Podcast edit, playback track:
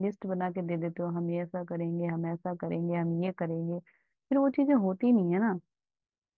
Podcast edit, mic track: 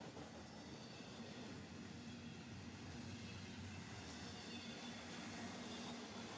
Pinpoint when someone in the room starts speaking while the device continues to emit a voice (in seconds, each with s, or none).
none